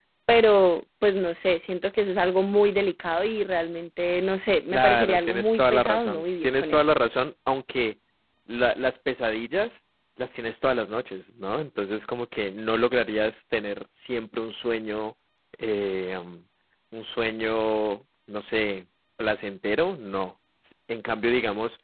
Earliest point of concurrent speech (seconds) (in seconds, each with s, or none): 4.7 s